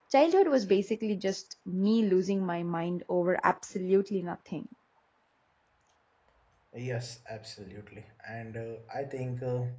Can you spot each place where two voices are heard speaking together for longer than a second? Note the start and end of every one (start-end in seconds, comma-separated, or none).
none